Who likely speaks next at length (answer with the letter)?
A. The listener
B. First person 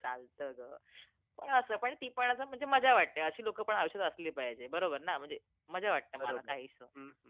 A